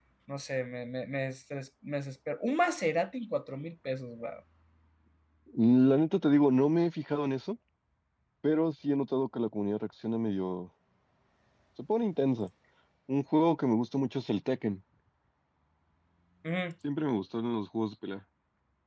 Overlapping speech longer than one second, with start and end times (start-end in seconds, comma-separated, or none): none